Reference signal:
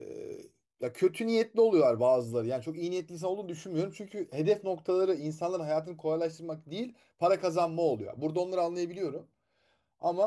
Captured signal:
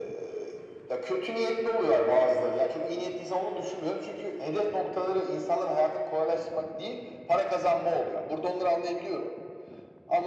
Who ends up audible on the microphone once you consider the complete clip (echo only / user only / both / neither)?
echo only